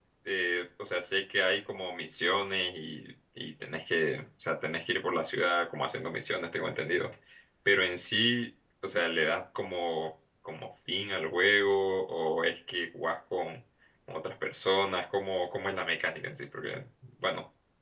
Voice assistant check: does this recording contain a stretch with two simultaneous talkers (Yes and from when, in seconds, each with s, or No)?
No